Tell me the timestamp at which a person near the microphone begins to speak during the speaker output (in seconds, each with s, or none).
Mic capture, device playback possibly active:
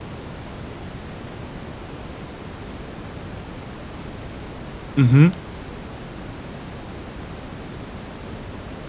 5.0 s